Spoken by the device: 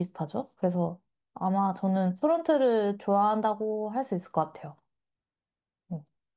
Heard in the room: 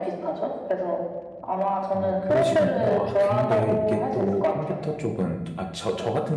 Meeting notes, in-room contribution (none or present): present